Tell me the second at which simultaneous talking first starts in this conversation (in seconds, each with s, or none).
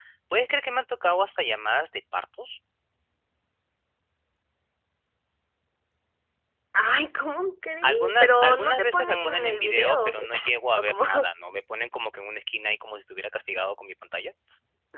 7.8 s